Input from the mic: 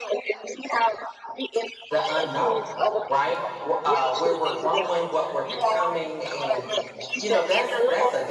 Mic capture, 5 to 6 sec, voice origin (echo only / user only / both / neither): both